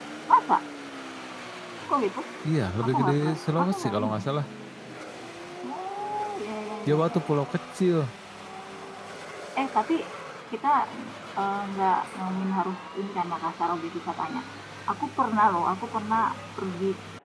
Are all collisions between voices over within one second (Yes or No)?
No